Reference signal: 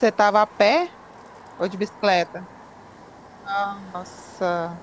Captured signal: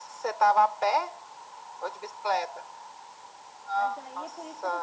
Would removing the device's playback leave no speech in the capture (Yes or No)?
No